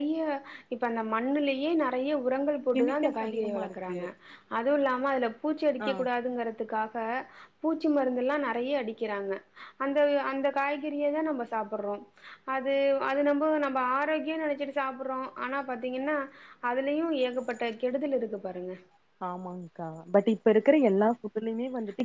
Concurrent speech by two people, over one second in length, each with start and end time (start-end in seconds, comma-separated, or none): 2.8-4.0